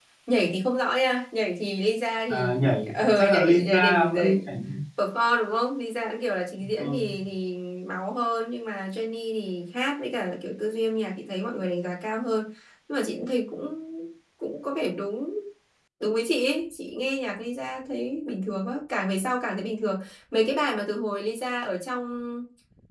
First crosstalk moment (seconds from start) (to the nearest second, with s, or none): 2 s